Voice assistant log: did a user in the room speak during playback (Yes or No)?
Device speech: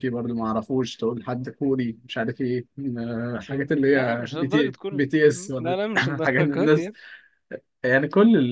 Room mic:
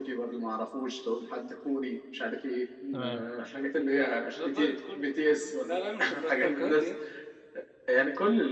Yes